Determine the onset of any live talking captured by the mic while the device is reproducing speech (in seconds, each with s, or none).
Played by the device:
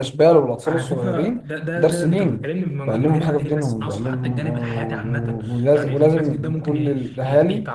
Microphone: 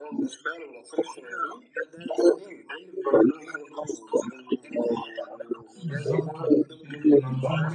5.8 s